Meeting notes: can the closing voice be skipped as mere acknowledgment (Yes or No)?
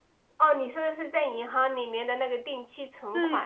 No